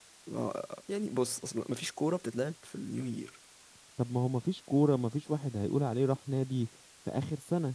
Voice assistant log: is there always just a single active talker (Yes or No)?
Yes